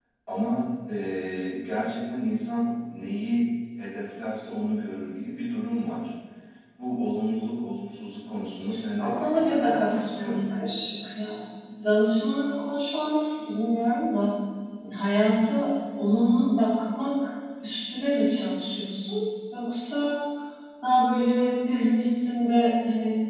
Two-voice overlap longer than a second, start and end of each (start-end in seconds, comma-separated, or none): 9.0-10.4